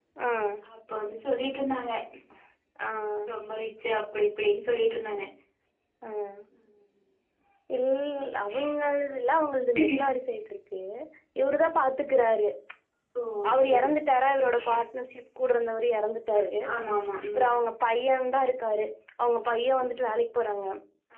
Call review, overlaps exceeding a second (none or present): none